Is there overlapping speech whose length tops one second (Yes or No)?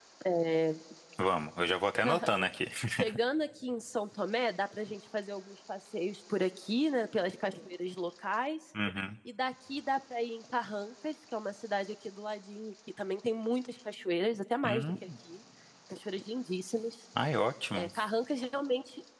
No